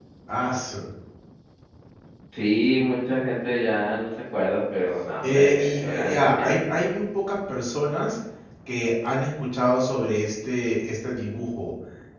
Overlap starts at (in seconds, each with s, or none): 5.2 s